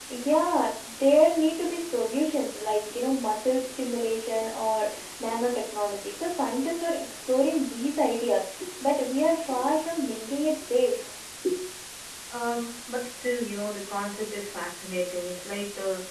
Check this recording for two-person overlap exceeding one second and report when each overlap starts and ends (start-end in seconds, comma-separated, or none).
none